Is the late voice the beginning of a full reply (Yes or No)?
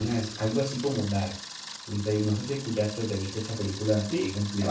Yes